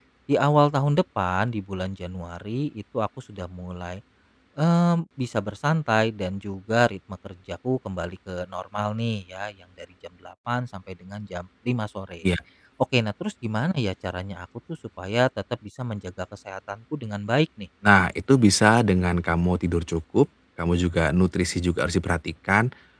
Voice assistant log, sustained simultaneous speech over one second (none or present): none